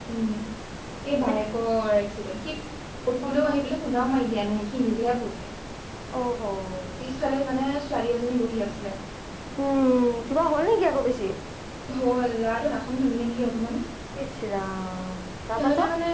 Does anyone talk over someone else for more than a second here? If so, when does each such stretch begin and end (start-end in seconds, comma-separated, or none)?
none